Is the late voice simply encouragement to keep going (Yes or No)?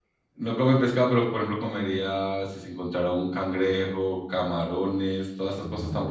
No